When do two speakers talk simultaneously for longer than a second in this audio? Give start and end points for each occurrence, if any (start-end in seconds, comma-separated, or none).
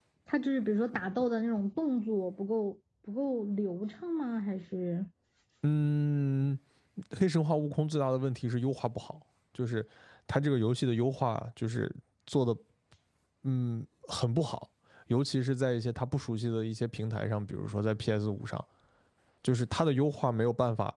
none